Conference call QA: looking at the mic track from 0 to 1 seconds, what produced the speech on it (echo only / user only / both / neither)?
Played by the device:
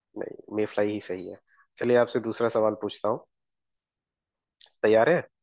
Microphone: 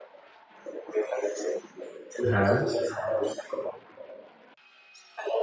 echo only